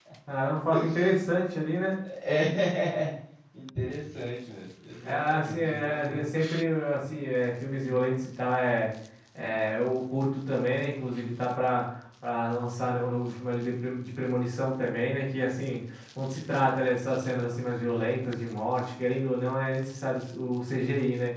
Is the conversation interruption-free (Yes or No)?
No